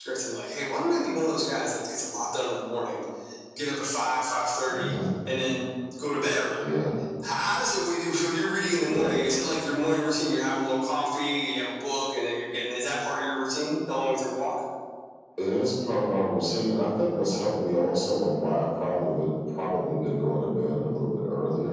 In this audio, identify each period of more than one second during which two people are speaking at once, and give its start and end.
none

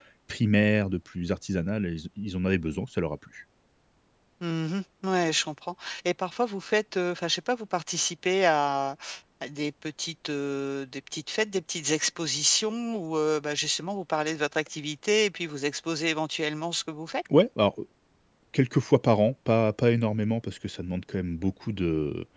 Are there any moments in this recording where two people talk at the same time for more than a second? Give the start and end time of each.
none

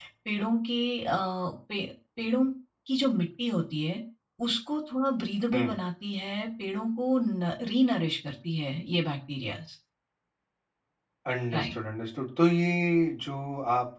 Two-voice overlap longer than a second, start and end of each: none

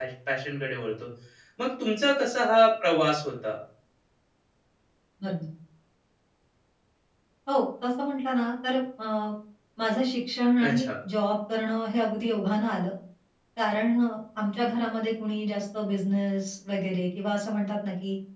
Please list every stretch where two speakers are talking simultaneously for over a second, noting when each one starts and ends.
none

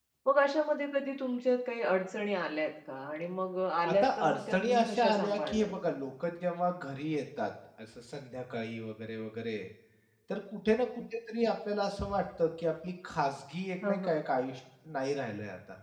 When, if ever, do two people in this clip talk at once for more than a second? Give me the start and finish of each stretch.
3.9-5.7

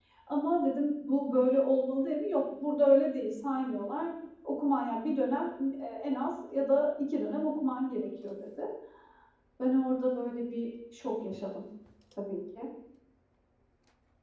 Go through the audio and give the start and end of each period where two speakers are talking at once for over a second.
none

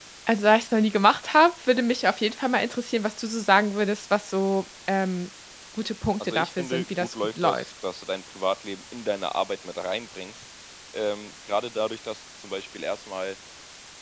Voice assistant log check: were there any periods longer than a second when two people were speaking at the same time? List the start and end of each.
6.2-7.7

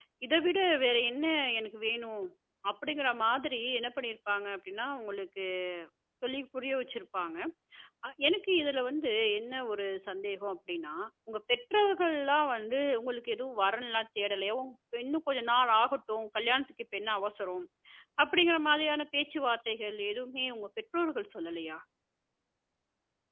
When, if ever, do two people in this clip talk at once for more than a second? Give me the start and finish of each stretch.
none

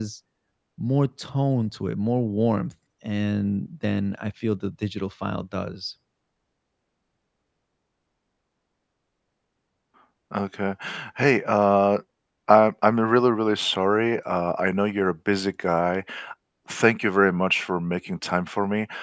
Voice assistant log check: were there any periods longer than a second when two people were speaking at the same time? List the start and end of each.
none

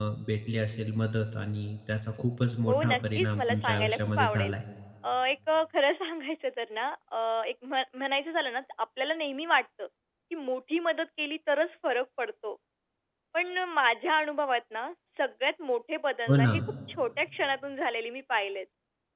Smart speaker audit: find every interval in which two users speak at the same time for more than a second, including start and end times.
2.7-4.5

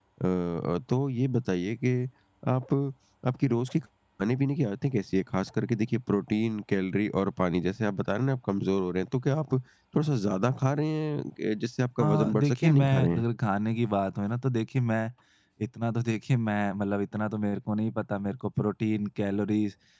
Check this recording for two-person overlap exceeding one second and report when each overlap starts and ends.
12.0-13.2

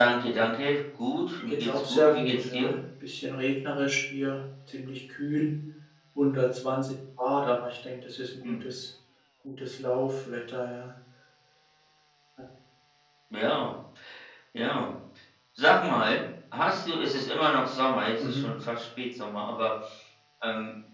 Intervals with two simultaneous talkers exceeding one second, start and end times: 1.4-2.7

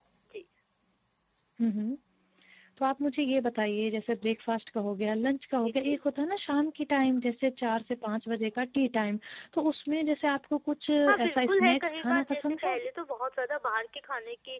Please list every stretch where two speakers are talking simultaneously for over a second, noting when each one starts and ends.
11.1-12.8

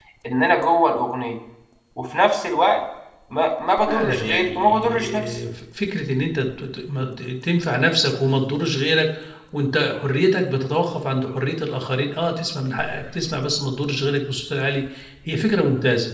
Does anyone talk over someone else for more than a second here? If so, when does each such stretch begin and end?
3.9-5.3

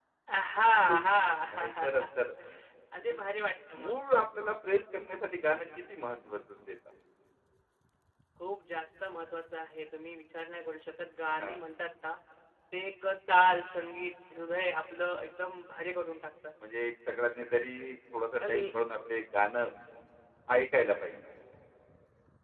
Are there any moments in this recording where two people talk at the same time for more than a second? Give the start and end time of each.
none

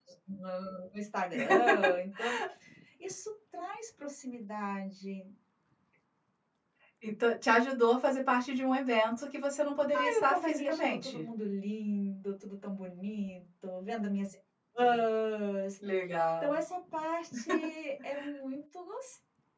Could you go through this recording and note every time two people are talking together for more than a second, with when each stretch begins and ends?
9.9-11.2

